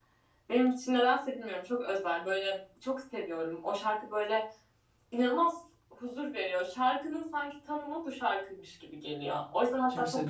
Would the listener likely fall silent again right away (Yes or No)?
Yes